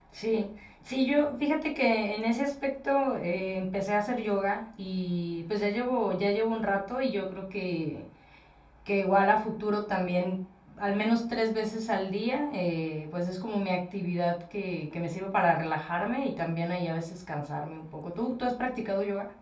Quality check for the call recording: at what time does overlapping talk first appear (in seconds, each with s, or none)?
none